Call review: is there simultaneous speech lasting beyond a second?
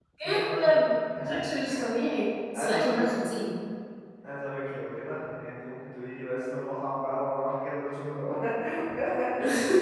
No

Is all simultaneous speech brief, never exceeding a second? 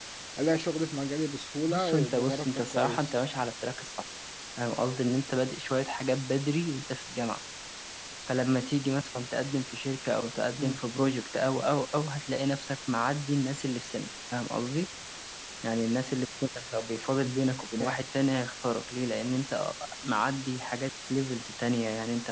No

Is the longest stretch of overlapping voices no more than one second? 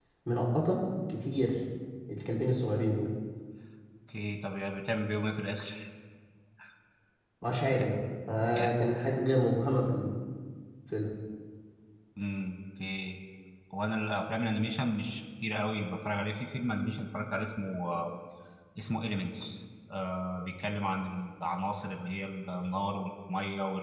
Yes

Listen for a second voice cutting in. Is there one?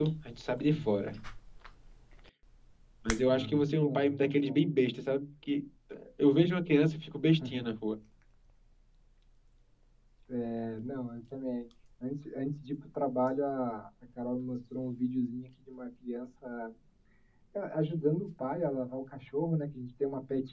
Yes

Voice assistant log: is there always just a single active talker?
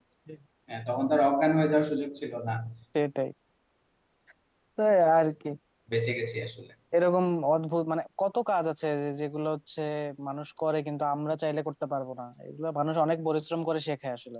Yes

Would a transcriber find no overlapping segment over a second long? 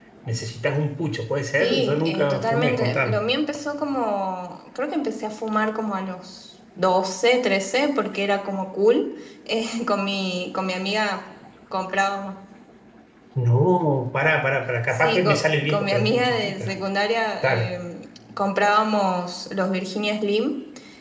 No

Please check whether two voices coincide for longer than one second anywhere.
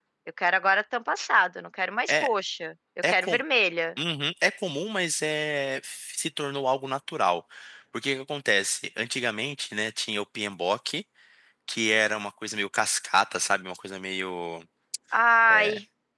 No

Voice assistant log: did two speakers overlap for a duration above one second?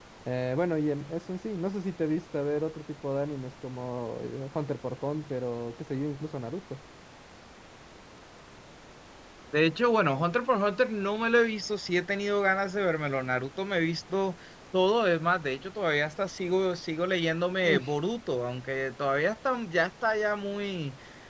No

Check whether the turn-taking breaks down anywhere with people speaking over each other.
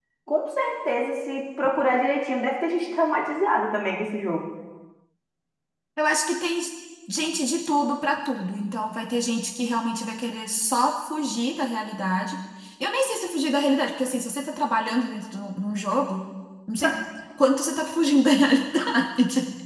No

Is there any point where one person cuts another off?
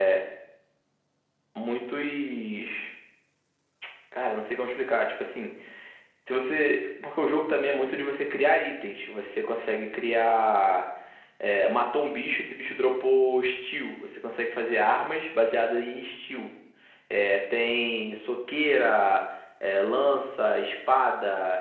No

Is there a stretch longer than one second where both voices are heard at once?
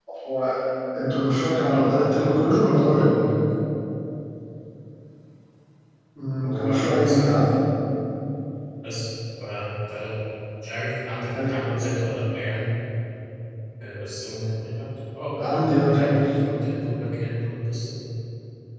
Yes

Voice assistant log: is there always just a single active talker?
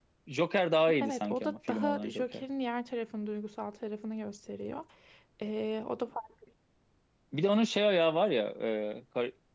No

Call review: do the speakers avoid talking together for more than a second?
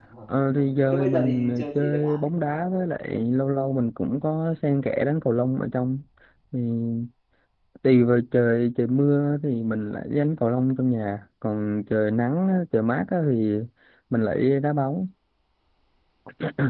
No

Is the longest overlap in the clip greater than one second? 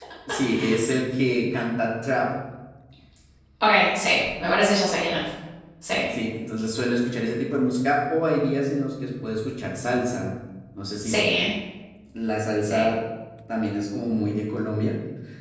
No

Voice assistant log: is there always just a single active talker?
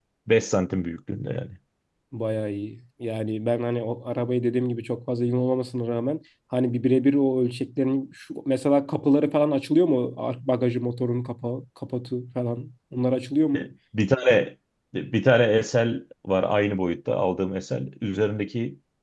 Yes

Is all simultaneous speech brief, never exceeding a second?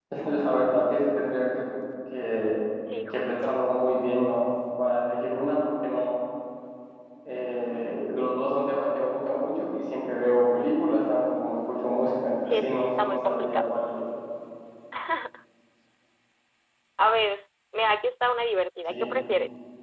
No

